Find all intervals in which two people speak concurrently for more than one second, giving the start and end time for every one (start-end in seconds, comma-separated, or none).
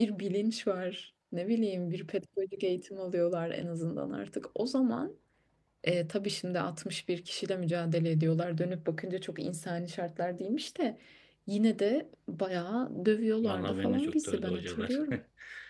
13.4-15.0